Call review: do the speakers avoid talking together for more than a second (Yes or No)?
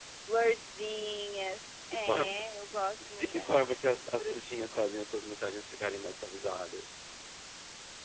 Yes